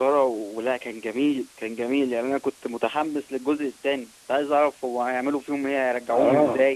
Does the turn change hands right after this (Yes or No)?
Yes